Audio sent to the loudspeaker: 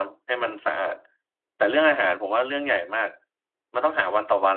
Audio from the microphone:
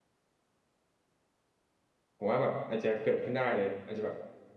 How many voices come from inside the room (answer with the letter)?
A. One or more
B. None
A